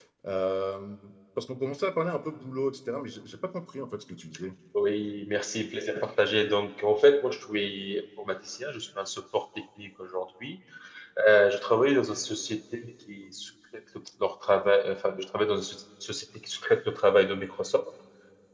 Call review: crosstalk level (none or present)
none